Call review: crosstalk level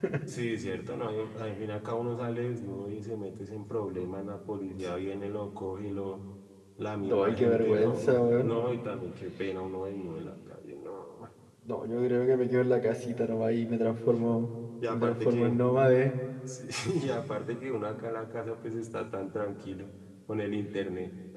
present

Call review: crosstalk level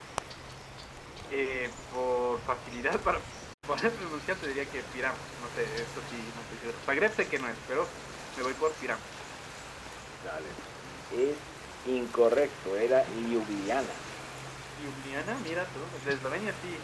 none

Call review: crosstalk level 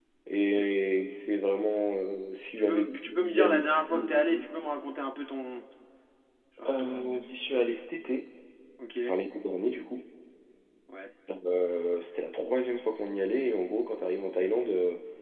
present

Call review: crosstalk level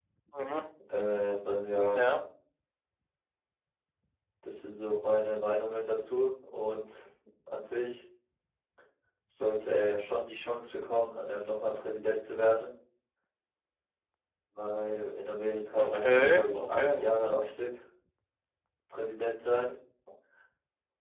present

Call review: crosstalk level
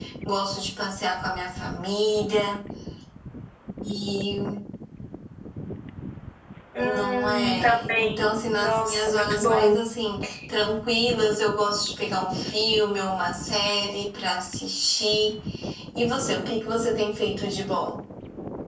present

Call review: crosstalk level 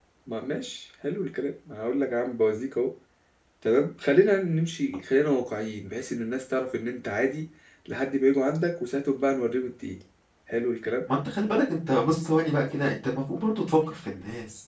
none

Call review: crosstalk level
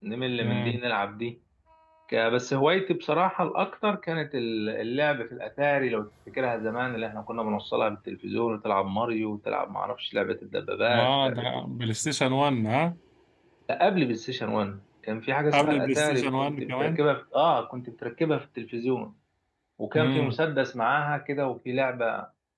present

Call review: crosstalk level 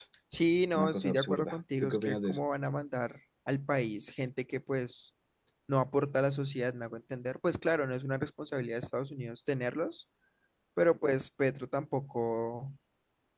present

